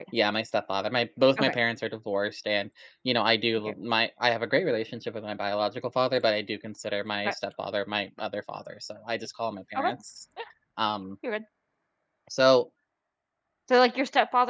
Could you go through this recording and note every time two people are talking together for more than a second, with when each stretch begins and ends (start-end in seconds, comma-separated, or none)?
none